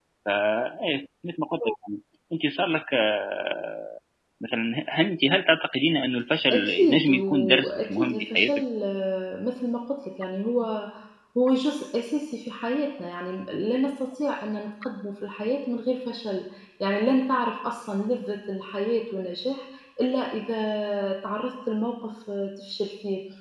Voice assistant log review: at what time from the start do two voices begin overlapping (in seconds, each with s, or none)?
6.5 s